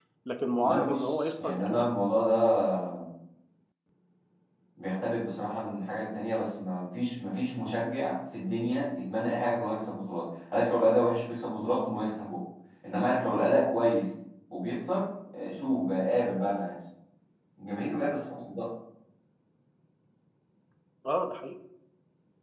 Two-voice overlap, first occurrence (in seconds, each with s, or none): 0.6 s